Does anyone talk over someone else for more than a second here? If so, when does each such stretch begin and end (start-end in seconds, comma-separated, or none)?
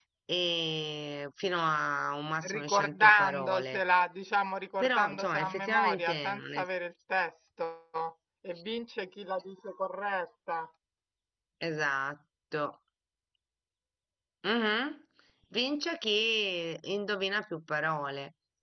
2.5-3.8, 4.8-6.6